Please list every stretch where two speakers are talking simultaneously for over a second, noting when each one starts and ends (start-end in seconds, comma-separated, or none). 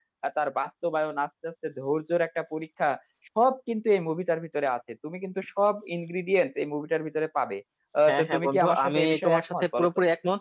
8.1-9.9